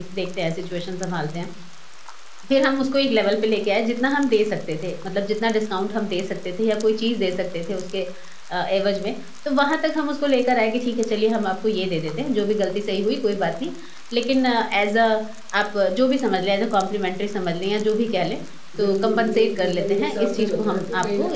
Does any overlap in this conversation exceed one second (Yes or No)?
Yes